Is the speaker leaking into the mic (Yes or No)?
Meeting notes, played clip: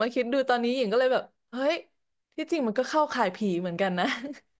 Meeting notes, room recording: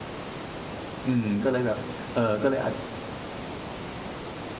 No